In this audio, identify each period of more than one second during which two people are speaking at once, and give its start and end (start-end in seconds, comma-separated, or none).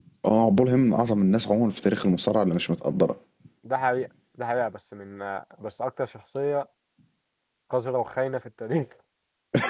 none